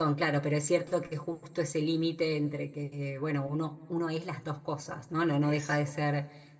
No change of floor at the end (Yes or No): Yes